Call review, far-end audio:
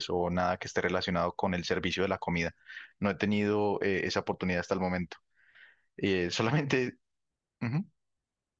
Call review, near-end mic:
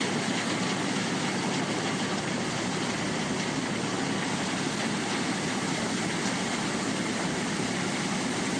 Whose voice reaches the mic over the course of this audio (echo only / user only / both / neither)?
neither